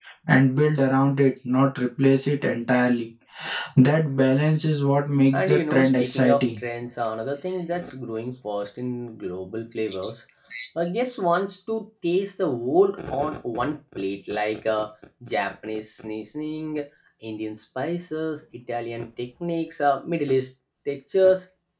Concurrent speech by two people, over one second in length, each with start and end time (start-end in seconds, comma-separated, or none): 5.3-6.6